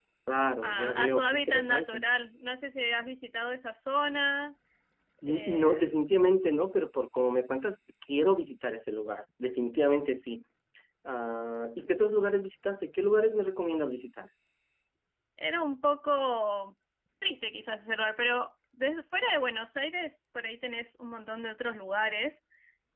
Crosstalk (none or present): present